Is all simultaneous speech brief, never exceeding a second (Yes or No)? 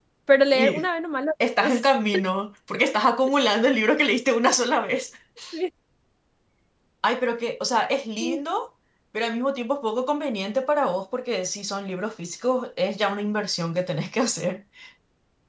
Yes